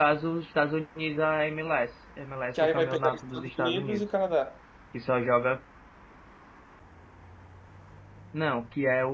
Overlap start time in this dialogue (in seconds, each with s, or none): 2.5 s